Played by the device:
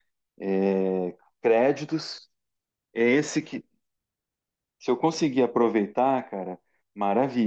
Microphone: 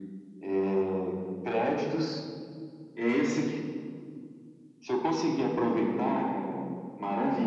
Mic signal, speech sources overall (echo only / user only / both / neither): echo only